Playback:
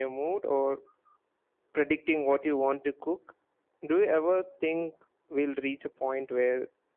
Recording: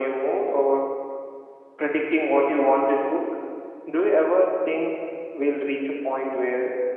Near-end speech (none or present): none